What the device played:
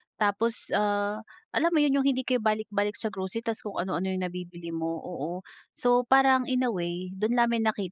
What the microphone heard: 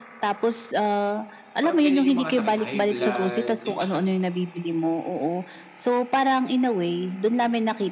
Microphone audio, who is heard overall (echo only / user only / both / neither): both